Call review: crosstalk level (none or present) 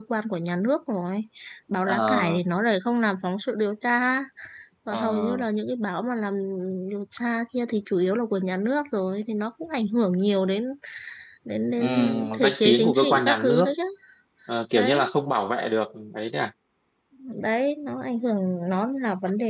present